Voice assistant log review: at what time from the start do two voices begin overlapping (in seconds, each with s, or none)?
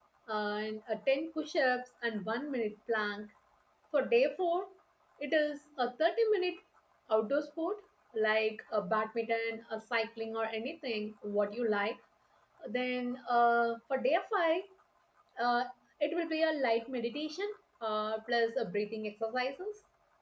none